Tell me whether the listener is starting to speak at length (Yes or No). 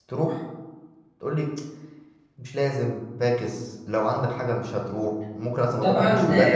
Yes